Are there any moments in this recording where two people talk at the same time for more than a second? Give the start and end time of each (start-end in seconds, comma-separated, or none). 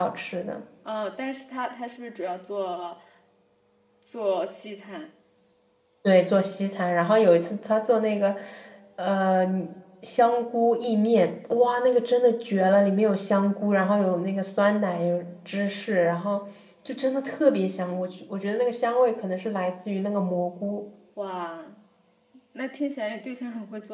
none